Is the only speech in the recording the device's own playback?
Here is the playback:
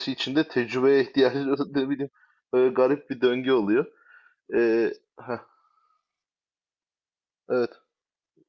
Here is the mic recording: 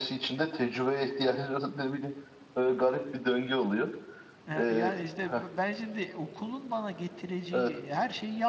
No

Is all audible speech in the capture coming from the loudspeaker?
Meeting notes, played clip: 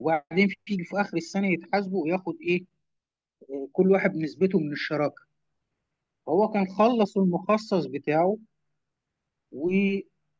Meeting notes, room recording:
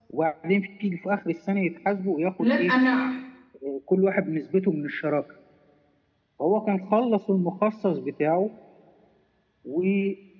No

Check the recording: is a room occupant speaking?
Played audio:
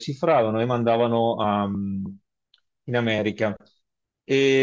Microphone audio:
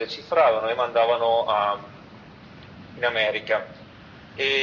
No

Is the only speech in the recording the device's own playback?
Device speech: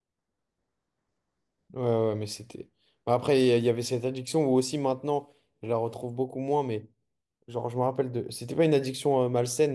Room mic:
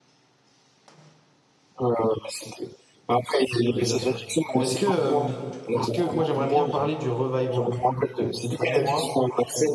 No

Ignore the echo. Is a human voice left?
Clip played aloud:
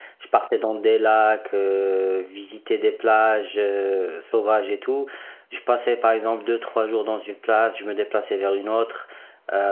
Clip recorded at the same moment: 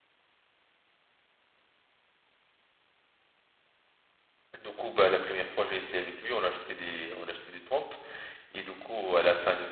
Yes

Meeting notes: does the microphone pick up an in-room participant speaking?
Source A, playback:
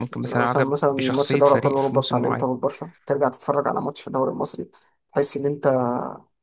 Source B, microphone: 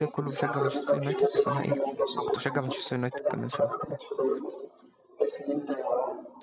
Yes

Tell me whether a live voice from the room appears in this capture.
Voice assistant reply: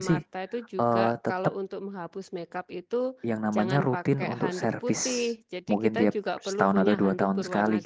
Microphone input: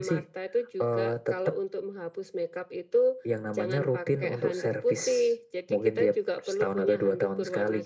No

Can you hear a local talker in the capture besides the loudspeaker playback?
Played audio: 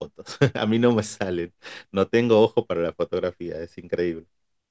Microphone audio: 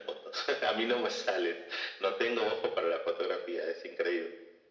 No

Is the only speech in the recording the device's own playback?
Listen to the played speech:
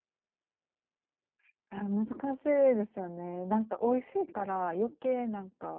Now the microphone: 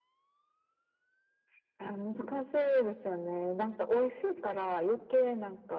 Yes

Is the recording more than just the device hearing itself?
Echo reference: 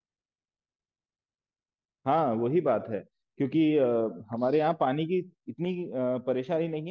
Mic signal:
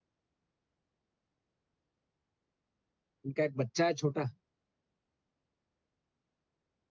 Yes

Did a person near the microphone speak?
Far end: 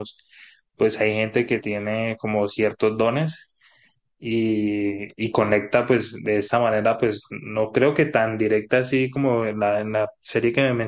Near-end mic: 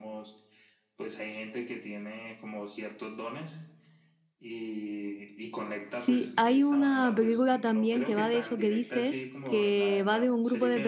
Yes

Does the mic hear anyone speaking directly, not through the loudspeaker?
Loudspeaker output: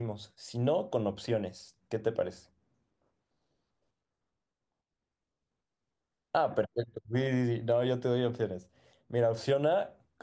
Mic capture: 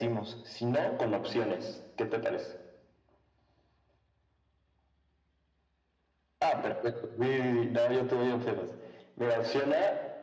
No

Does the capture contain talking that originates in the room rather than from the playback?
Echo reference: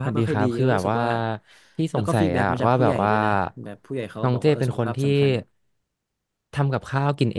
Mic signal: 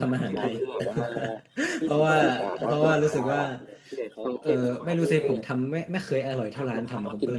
Yes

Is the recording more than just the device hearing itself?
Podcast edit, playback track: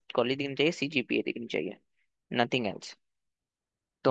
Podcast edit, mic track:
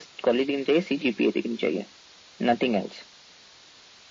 No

